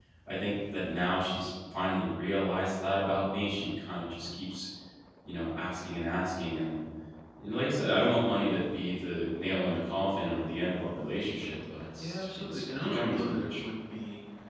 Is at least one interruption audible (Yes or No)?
Yes